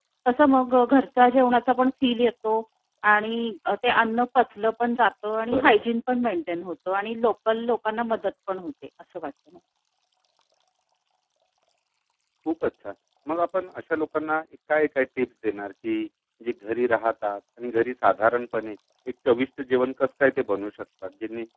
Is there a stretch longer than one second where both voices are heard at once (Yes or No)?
No